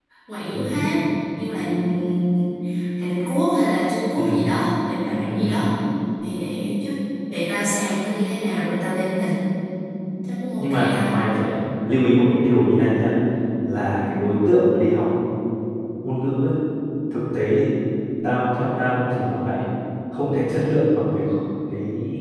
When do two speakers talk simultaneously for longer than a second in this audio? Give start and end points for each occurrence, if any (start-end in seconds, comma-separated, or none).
none